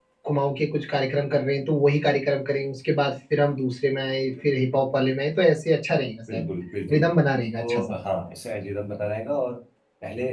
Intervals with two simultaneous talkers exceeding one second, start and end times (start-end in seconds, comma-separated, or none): none